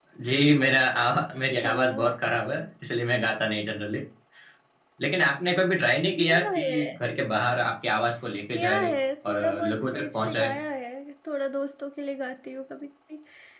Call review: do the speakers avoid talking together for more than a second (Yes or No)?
No